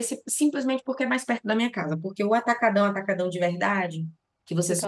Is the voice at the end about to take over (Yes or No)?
No